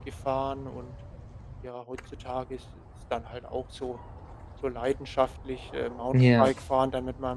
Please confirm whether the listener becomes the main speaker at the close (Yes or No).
No